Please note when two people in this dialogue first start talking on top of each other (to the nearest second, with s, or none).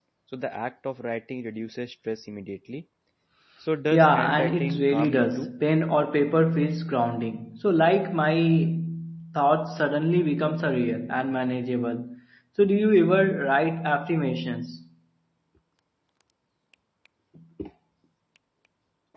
4 s